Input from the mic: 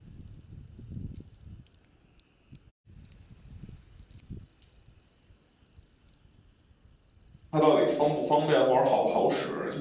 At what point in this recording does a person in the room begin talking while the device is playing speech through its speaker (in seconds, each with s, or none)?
7.5 s